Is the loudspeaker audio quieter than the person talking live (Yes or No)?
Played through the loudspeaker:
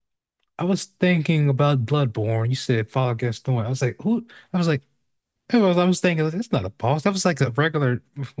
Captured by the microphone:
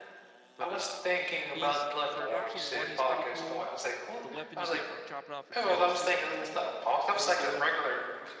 No